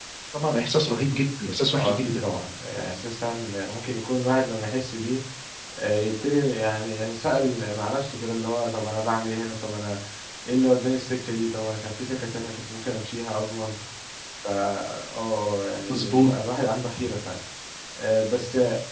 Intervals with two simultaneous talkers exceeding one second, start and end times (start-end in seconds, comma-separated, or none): none